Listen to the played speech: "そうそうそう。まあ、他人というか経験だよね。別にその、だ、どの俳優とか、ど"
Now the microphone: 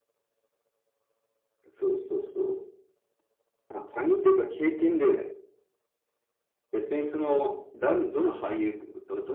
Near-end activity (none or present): none